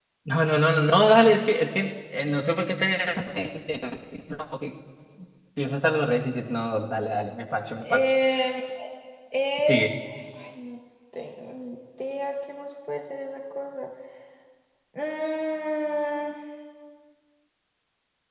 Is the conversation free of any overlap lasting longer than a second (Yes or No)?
Yes